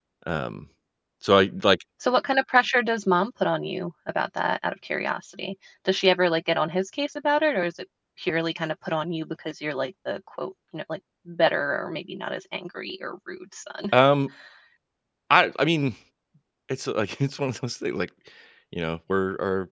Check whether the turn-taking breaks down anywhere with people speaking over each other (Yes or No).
No